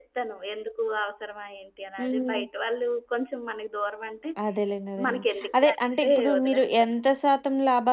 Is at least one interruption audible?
Yes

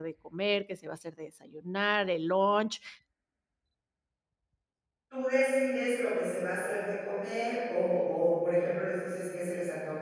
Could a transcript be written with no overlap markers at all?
Yes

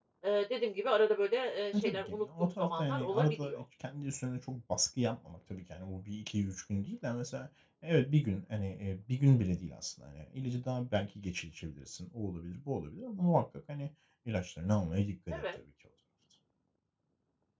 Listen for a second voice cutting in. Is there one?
Yes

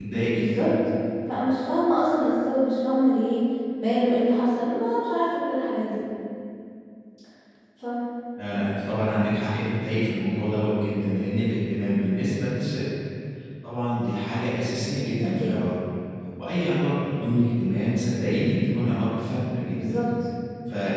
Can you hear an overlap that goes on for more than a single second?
No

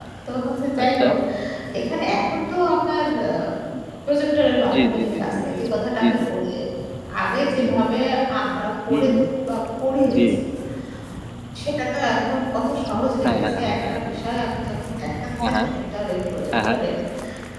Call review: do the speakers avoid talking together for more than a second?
No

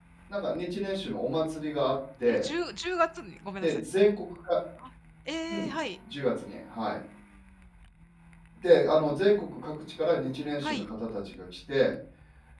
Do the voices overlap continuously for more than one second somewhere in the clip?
No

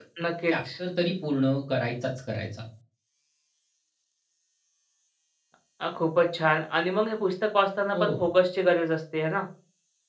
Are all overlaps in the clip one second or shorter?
Yes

